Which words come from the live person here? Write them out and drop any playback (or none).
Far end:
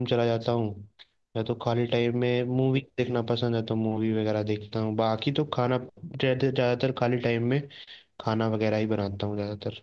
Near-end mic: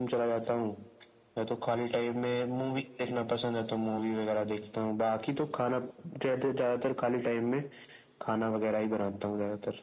none